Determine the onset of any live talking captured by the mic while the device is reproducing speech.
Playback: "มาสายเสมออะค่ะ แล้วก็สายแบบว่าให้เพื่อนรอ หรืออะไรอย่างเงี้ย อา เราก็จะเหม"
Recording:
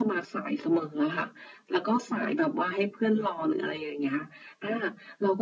none

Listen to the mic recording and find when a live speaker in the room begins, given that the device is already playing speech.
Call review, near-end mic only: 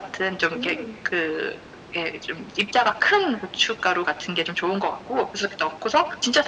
0 s

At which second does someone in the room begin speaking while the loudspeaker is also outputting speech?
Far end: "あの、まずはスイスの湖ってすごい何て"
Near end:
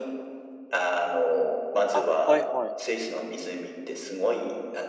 2 s

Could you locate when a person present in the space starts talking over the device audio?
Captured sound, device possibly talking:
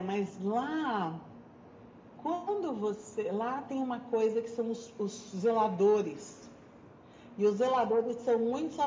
none

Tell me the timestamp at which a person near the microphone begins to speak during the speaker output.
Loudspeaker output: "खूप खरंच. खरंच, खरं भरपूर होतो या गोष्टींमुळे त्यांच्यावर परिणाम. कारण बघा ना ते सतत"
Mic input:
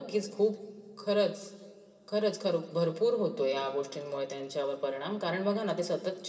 none

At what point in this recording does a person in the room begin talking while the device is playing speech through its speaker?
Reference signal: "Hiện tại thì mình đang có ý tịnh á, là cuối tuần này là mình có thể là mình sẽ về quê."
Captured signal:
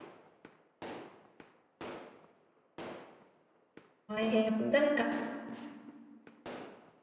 4 s

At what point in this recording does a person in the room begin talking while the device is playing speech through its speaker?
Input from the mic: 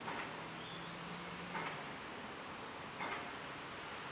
none

